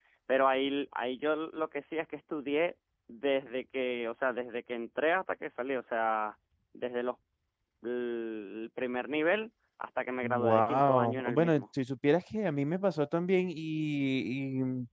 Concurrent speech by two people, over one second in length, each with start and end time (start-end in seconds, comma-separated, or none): 10.2-11.6